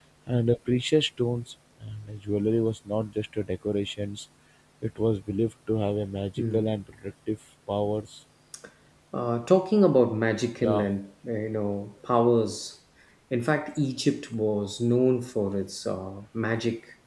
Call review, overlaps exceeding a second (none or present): none